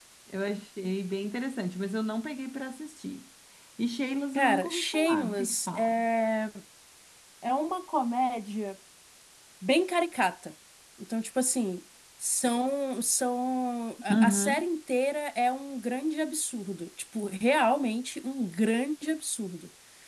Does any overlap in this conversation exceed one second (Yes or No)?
Yes